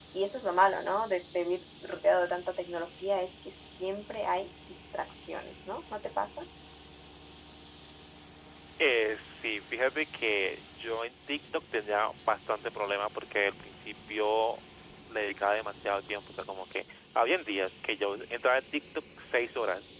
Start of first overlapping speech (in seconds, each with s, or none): none